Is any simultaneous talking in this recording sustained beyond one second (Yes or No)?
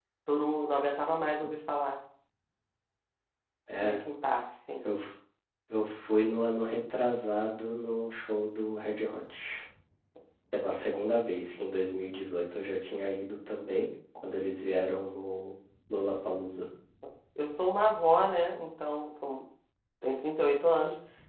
No